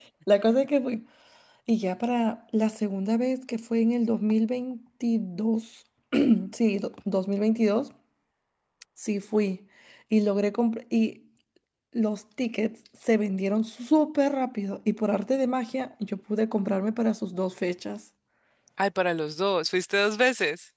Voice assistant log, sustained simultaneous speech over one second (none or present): none